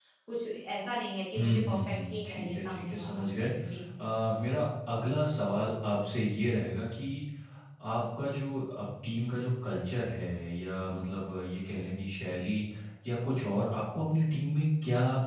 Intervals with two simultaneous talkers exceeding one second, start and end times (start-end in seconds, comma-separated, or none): 1.4-3.2